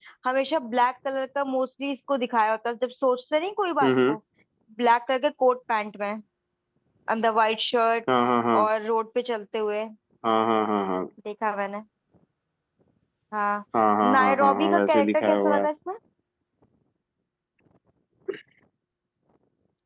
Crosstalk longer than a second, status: present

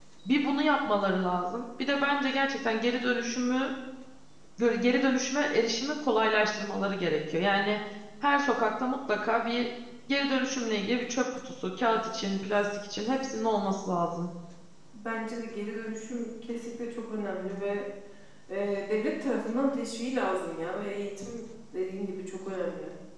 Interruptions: none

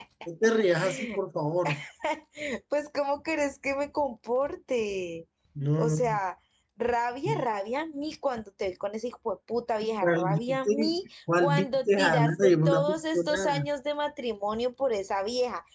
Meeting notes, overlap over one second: present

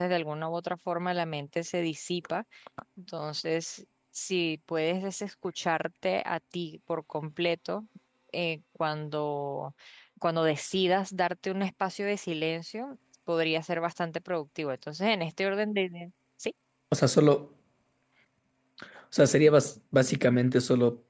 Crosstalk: none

